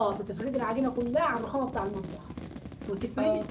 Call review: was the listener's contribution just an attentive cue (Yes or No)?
Yes